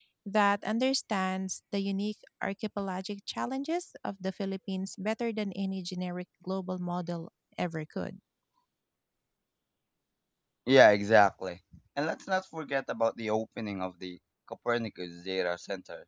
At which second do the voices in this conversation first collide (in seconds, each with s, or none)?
none